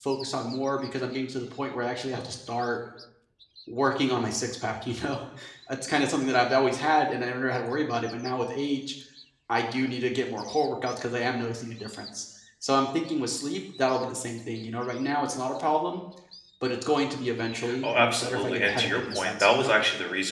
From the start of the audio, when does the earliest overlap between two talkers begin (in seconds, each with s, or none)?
17.6 s